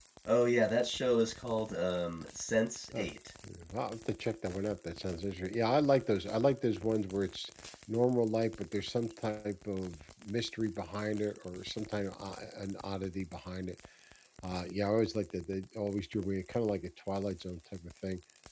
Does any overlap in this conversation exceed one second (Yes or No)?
No